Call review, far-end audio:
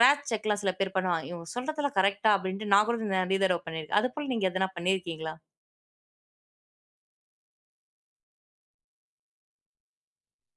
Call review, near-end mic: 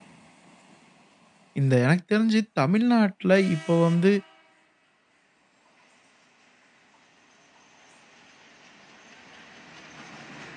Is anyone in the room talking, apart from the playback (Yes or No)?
Yes